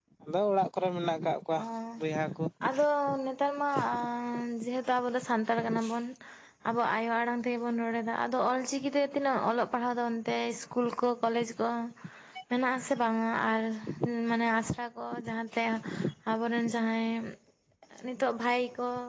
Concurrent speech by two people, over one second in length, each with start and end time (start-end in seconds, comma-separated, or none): none